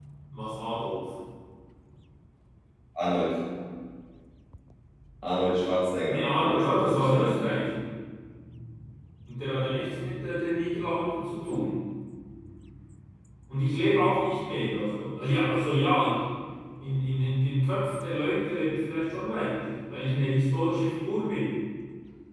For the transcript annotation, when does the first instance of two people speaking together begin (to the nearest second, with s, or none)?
6 s